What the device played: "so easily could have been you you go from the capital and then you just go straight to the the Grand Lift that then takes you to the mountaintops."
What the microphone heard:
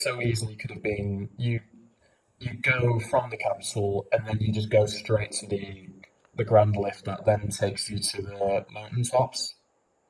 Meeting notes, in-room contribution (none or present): none